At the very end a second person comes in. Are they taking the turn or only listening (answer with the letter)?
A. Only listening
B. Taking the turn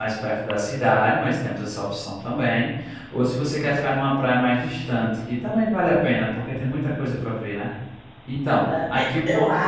B